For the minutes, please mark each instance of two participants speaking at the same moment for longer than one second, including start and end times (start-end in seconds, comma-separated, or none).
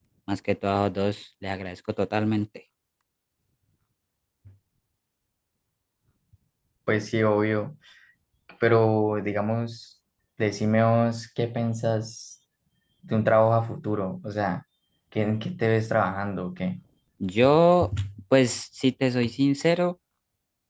none